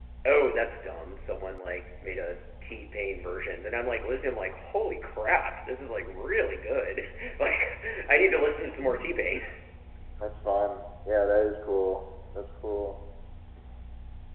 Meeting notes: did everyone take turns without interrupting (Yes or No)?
Yes